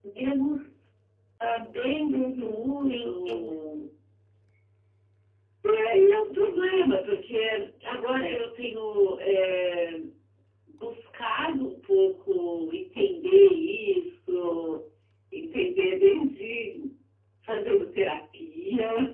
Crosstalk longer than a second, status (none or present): present